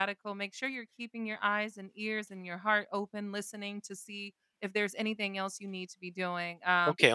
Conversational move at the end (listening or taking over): listening